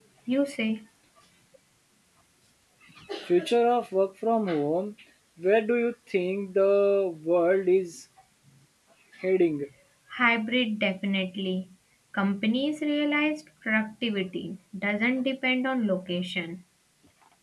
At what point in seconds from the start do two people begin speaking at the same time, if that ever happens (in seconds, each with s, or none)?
none